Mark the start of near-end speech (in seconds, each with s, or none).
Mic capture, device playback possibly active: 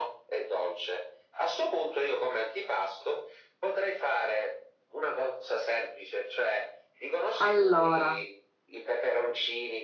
7.4 s